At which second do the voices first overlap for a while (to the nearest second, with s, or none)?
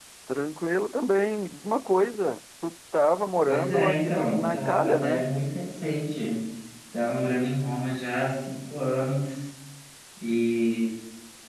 3 s